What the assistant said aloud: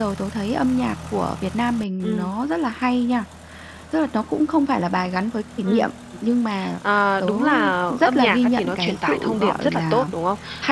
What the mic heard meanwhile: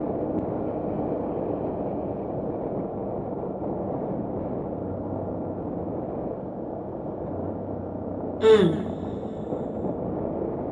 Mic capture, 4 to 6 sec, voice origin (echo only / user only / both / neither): neither